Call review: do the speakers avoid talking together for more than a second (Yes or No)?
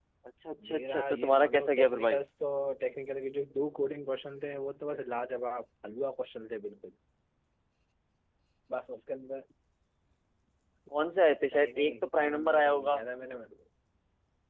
No